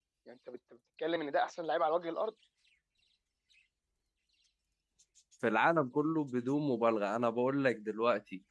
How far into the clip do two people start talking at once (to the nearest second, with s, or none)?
none